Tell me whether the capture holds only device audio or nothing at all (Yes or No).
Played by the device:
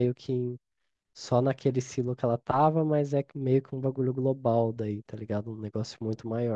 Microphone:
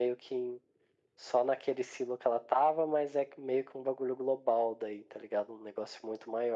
Yes